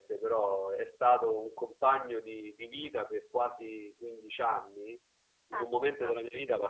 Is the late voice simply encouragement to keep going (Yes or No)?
Yes